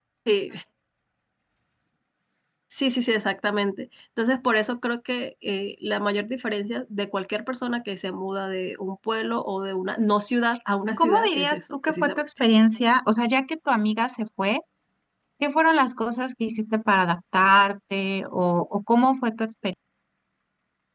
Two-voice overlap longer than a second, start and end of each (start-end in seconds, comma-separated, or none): 11.0-12.2